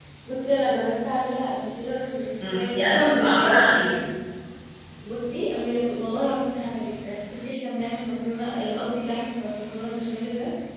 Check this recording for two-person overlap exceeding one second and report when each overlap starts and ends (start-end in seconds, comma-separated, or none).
2.4-4.0